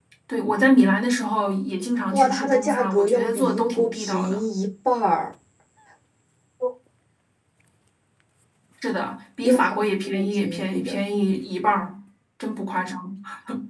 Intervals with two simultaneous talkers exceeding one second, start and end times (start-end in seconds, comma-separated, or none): 2.1-4.4, 9.4-11.0